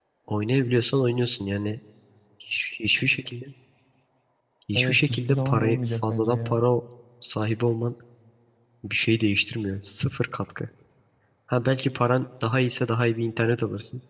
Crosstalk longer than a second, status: present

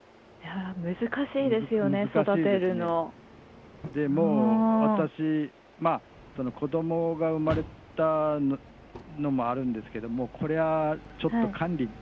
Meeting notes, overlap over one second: present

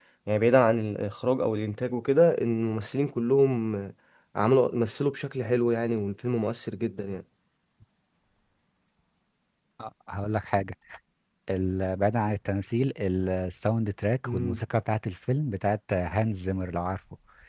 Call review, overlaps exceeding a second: none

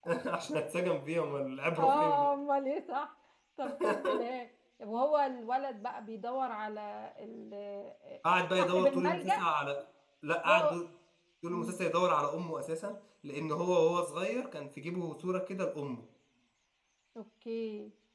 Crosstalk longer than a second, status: present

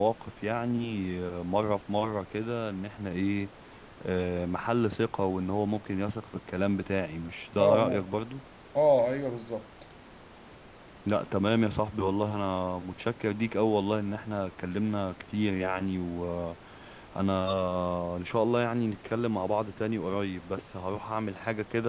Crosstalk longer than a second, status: none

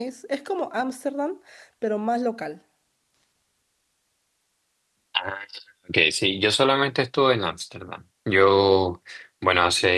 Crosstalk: none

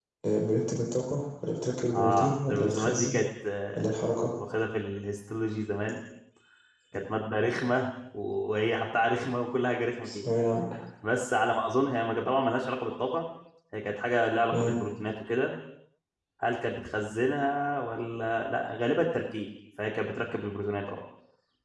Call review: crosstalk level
present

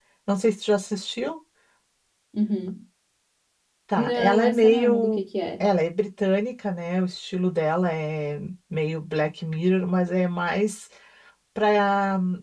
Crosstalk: present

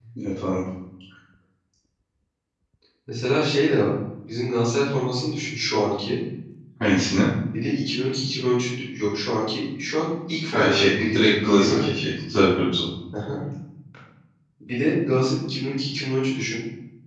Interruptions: present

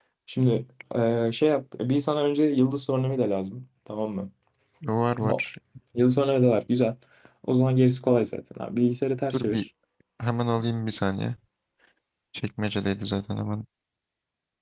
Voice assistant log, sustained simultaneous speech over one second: none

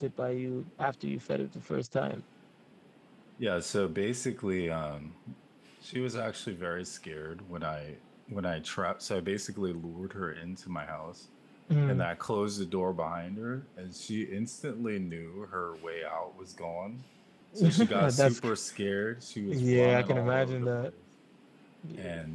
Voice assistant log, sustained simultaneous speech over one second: present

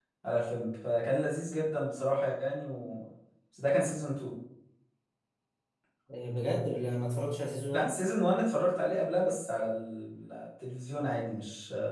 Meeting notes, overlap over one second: none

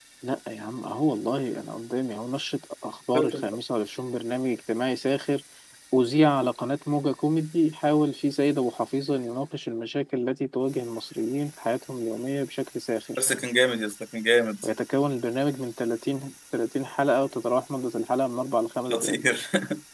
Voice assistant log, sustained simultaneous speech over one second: none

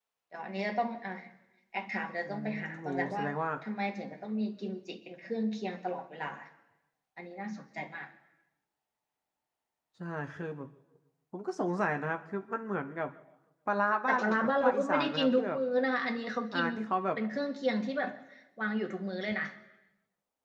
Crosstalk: present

